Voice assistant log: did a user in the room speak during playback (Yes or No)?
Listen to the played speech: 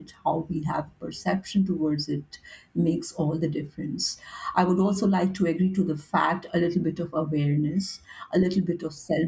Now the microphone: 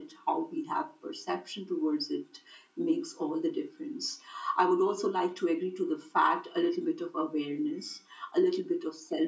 No